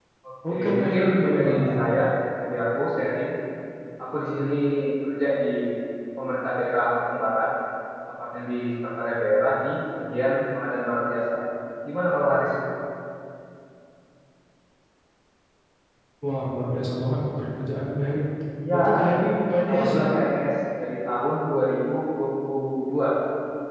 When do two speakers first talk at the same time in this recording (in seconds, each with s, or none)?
0.5 s